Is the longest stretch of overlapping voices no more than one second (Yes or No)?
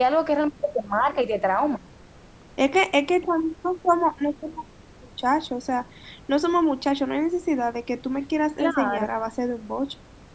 Yes